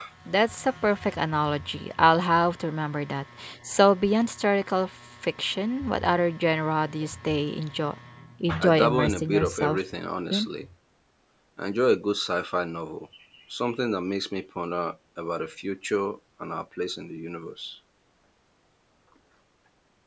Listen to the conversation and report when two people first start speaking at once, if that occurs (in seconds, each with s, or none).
8.6 s